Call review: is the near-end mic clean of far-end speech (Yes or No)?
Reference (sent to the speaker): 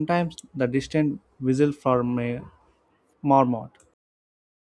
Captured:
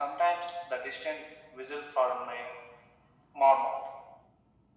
No